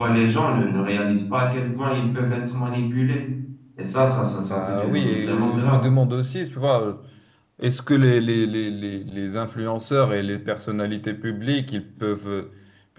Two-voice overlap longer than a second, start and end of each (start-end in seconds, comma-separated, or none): 4.4-5.8